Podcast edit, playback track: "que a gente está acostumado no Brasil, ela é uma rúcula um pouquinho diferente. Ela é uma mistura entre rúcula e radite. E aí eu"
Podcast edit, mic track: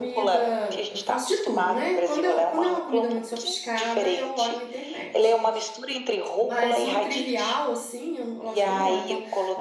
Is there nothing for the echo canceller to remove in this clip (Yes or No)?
No